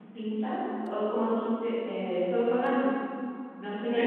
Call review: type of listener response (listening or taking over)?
taking over